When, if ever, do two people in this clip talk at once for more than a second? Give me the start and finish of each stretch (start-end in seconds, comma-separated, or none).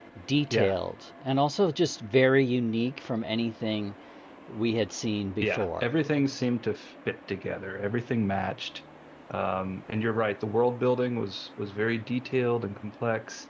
none